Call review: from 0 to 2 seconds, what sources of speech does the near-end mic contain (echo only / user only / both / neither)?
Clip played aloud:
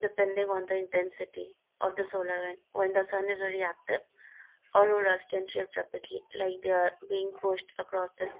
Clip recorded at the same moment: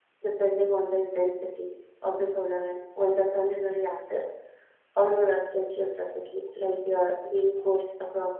echo only